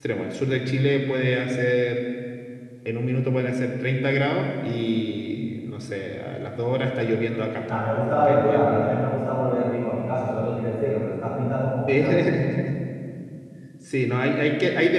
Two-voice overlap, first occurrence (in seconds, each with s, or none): 7.7 s